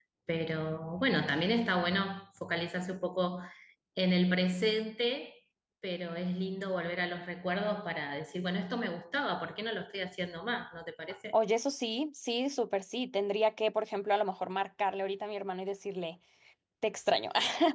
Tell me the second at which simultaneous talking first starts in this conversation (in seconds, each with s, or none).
none